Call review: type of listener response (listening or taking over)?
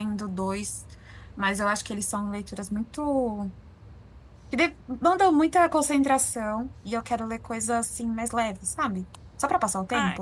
taking over